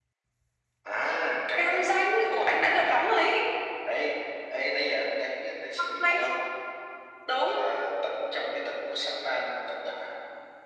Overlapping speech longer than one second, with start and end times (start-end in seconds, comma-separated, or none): 1.6-3.0